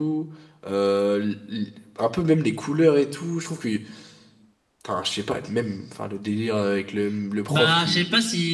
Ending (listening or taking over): taking over